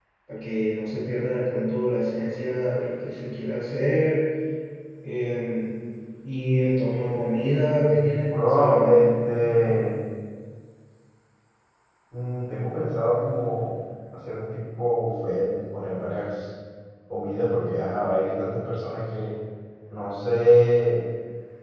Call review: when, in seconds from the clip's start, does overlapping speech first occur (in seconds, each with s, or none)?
7.8 s